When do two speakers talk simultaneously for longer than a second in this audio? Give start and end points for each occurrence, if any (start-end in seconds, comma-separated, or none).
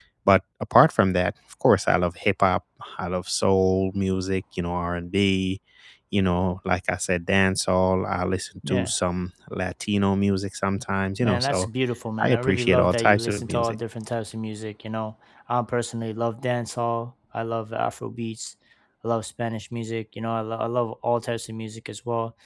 12.2-13.8